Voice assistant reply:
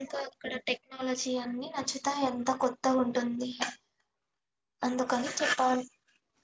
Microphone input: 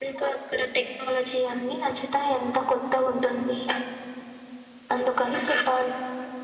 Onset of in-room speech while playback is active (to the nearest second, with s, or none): none